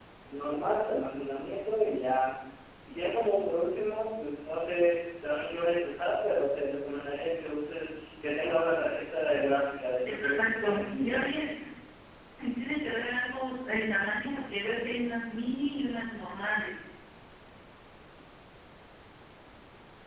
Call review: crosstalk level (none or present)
present